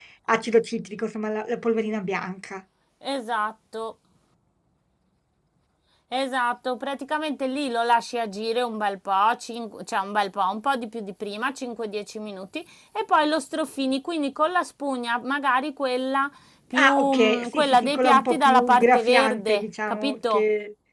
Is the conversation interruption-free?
No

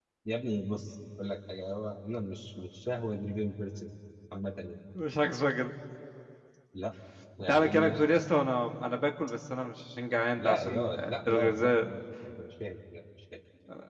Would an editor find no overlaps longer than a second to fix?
No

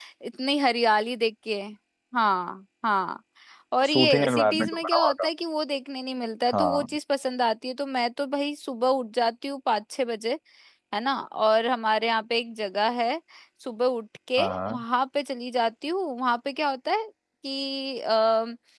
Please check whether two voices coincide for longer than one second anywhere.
Yes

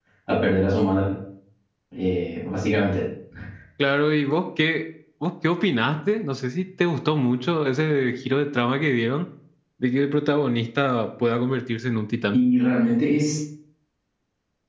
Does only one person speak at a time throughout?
Yes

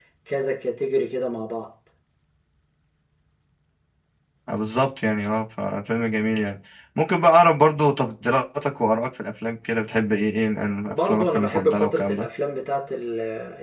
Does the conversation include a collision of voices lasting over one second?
Yes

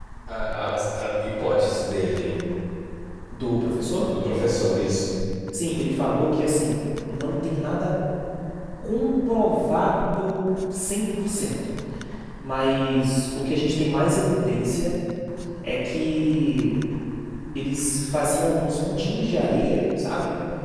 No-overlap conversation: Yes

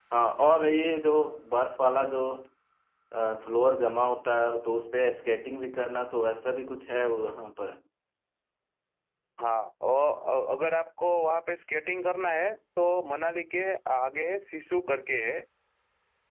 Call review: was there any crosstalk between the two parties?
No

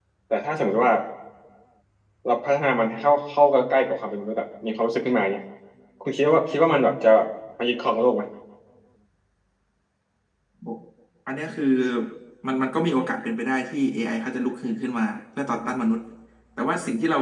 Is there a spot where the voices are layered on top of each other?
No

